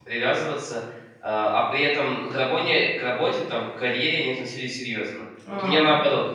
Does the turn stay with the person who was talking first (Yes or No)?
Yes